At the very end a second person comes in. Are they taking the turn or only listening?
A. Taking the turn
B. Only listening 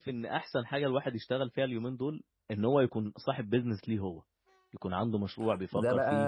A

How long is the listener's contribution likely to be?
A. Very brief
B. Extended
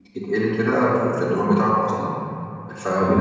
A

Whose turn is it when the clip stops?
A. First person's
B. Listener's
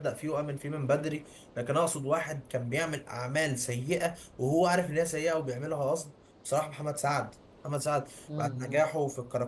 A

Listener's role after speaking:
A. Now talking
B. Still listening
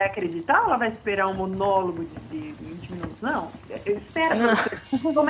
B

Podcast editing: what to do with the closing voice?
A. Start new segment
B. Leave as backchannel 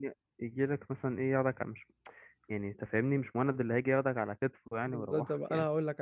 A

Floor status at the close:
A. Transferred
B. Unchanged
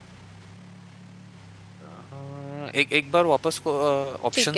A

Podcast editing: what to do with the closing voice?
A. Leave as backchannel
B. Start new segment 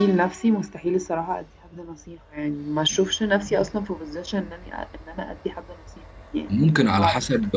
B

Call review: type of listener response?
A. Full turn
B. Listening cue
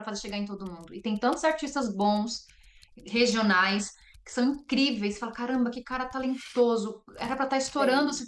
B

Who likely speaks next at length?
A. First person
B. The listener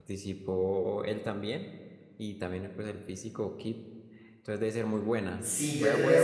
B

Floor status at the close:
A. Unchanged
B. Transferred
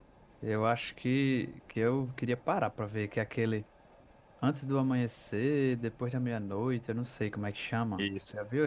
B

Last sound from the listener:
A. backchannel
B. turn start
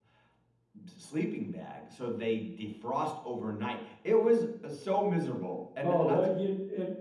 B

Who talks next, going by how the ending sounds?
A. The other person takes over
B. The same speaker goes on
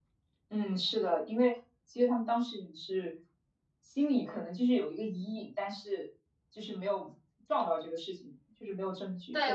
A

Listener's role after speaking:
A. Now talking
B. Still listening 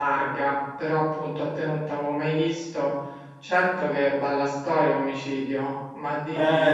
A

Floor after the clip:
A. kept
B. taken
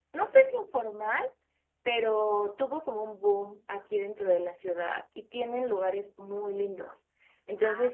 A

